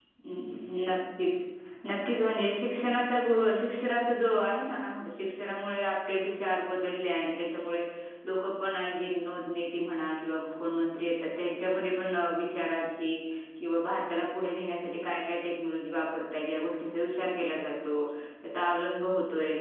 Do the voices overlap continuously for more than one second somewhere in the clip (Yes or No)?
No